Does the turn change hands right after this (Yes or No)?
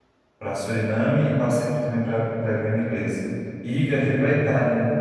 No